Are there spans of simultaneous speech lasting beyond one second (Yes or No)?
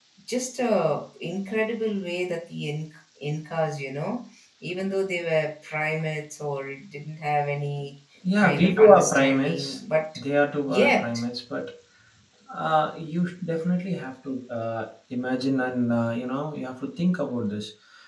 Yes